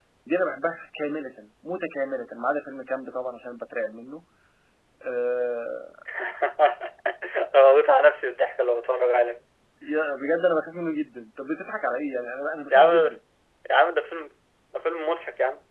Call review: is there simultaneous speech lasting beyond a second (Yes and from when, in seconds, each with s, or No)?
No